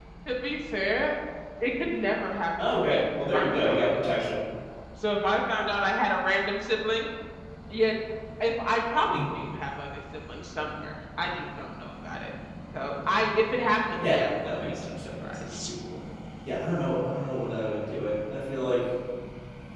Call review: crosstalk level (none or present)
present